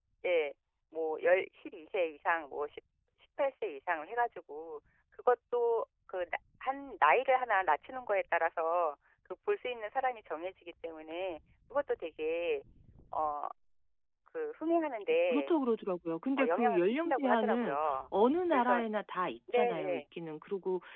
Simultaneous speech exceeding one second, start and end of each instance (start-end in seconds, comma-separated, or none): 16.4-18.0